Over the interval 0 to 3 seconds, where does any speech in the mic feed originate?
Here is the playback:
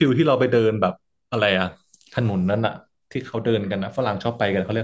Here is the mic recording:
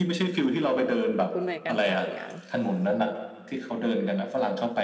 both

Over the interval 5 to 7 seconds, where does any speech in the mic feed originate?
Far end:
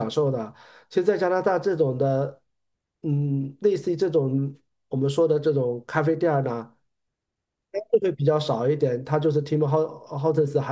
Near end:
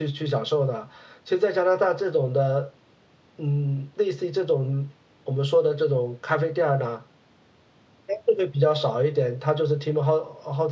echo only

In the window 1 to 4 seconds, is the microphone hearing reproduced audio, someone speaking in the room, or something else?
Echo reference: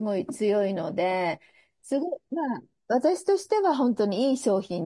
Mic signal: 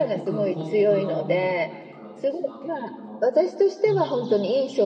both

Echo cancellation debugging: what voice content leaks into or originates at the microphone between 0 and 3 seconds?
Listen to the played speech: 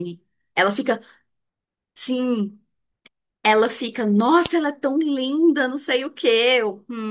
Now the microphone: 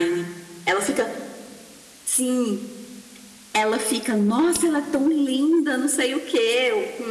echo only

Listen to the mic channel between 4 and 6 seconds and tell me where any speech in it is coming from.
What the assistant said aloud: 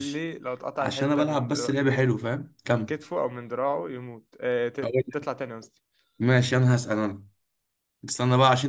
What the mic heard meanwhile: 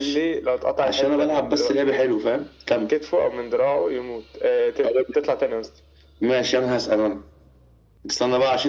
echo only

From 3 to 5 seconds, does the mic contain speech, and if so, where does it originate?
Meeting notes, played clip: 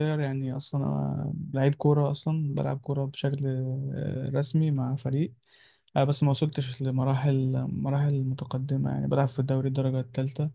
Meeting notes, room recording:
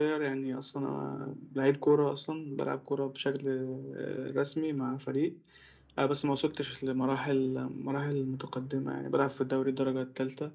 echo only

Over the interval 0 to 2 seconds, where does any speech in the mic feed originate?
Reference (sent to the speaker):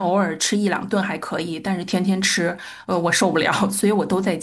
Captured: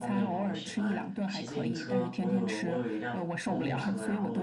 both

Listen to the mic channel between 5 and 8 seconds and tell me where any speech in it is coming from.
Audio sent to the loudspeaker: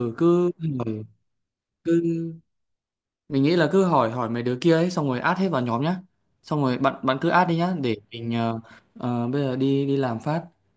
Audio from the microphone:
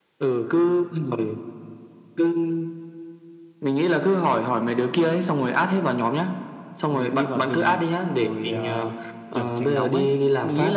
both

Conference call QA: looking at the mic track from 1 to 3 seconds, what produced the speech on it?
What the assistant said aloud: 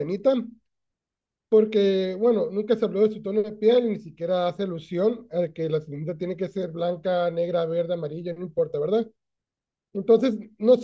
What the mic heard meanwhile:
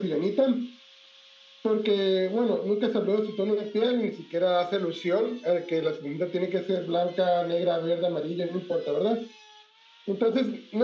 echo only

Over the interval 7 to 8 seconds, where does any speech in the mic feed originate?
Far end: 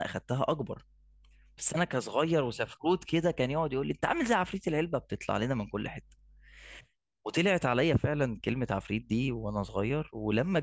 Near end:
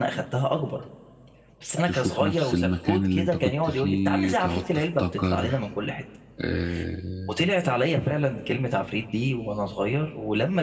both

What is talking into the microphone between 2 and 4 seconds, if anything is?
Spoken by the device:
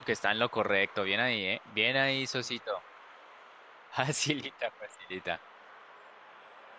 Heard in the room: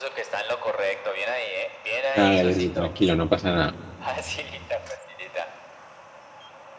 both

